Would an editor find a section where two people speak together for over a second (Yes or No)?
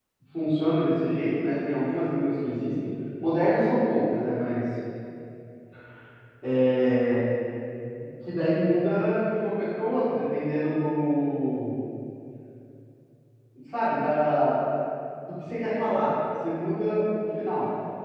No